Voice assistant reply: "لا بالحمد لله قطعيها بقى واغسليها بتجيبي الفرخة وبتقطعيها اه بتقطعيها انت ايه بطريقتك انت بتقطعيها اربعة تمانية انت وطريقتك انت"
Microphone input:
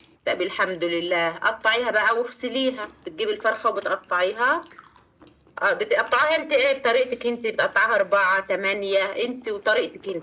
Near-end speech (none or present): none